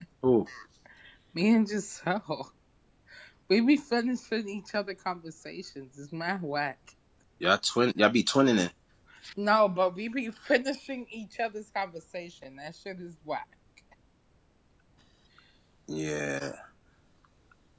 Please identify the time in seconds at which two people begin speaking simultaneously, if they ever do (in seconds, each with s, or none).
none